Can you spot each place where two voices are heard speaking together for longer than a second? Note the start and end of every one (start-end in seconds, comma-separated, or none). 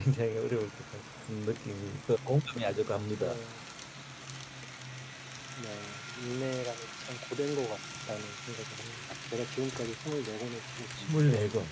none